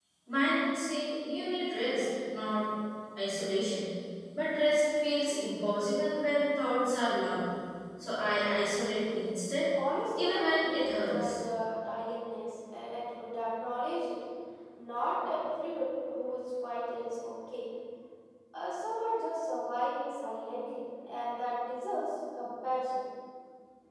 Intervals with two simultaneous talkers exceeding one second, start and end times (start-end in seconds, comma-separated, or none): 10.1-11.4